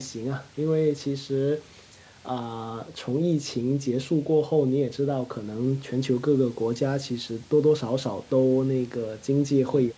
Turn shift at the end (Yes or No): No